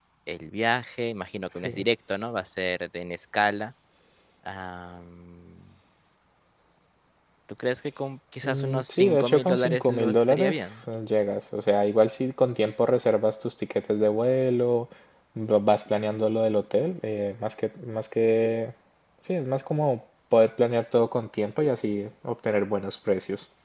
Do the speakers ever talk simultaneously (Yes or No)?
Yes